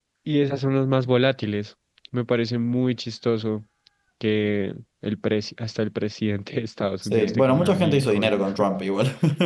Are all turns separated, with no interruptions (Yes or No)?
No